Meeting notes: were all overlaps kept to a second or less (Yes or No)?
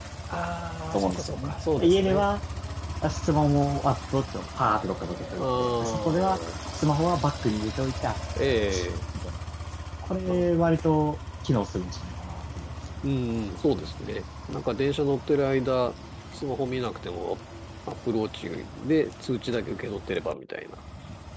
No